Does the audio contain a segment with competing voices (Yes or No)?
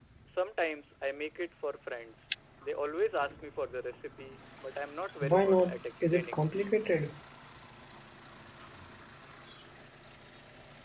Yes